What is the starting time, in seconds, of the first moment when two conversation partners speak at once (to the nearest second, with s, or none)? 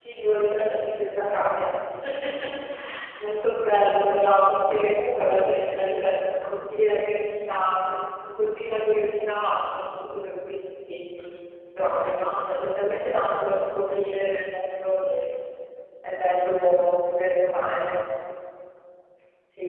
none